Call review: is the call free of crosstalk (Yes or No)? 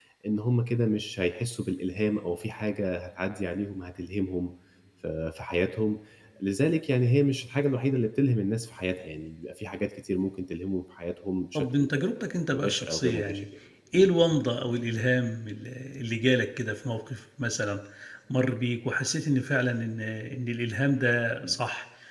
No